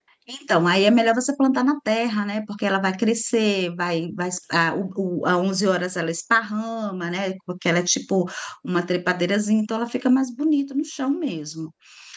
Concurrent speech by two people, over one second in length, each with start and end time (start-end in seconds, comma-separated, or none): none